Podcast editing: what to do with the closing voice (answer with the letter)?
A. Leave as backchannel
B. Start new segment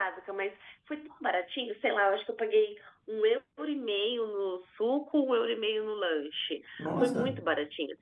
A